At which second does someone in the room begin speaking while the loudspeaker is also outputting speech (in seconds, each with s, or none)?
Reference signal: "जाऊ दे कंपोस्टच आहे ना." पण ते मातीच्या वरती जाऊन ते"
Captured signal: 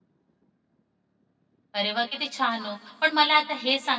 1.7 s